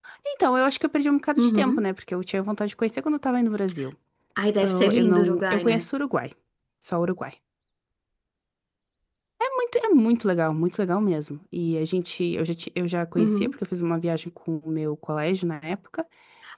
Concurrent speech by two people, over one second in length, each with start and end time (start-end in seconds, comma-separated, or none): 4.6-5.8